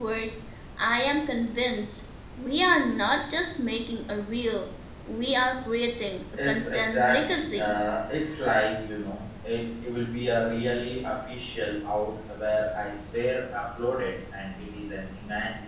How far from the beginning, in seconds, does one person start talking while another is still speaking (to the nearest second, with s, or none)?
6 s